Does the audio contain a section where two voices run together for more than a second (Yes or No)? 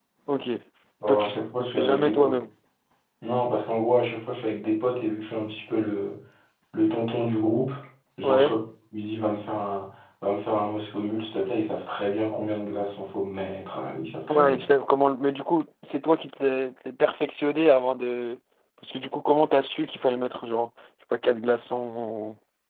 Yes